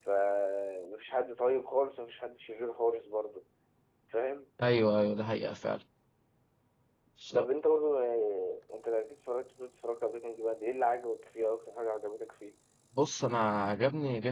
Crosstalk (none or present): none